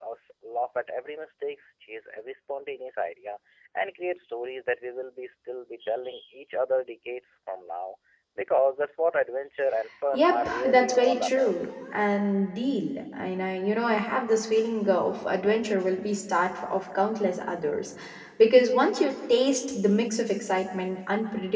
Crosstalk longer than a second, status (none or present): present